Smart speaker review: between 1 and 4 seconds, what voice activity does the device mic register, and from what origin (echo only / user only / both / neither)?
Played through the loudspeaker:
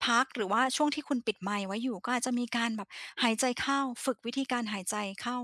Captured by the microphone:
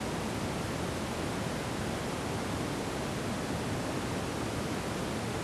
neither